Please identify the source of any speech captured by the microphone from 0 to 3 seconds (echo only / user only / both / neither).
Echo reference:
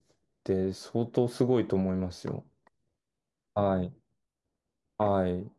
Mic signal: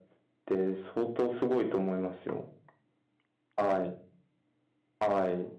echo only